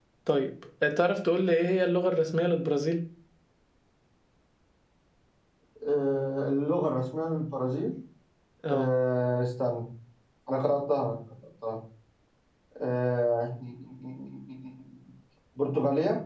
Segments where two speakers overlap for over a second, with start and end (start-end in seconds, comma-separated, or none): none